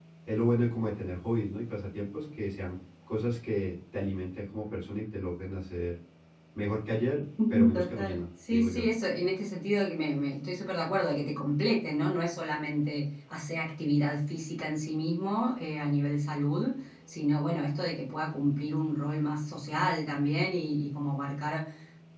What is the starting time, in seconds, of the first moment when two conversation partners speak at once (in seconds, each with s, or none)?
7.4 s